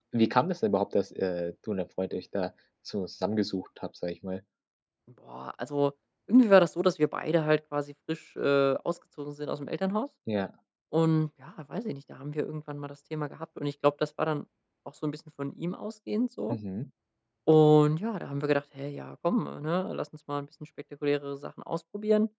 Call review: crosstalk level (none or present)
none